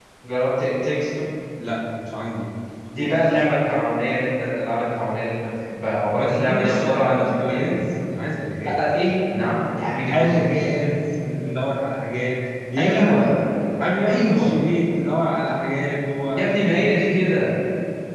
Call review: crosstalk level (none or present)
present